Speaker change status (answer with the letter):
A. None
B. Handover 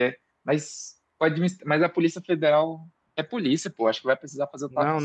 B